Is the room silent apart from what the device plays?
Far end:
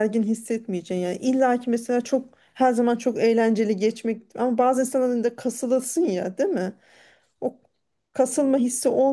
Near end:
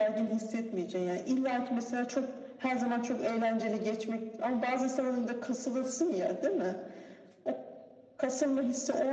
Yes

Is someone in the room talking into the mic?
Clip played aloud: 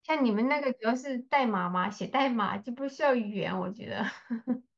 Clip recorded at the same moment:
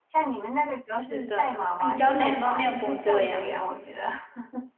Yes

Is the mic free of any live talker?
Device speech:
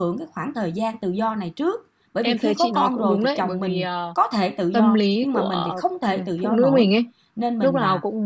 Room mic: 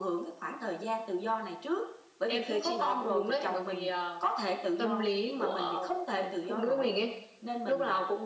Yes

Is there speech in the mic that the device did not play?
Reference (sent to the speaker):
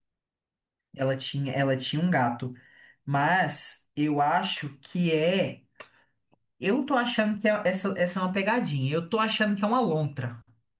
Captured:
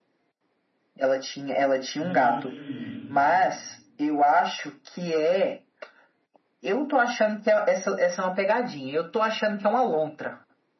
Yes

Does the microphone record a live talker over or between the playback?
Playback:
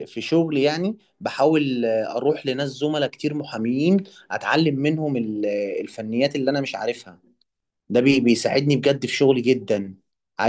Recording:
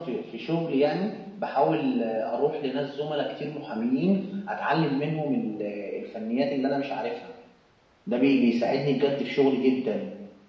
No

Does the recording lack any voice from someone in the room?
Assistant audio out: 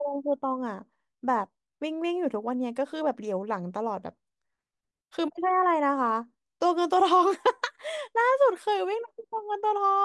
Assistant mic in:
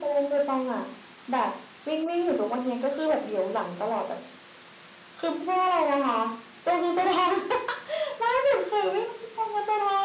Yes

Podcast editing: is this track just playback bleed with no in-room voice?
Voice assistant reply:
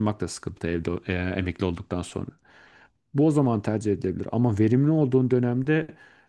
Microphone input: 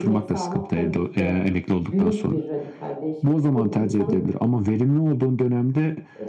No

